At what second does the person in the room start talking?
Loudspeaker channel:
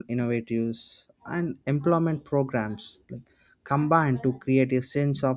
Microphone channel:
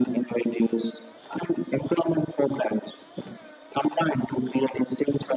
none

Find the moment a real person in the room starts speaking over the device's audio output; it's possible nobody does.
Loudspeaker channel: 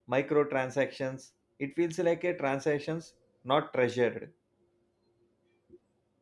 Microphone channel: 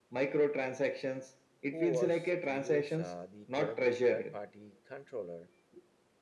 1.7 s

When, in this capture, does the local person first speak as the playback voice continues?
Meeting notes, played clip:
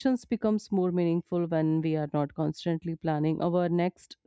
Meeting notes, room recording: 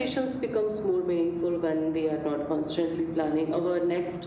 none

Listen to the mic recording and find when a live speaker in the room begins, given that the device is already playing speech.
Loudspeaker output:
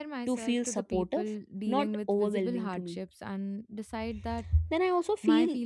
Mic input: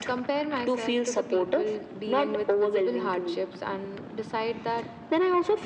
none

